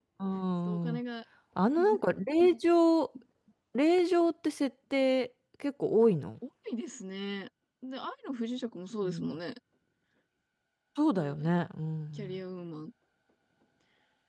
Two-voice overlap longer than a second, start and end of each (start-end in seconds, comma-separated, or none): none